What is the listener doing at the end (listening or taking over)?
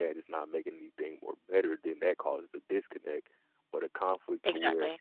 listening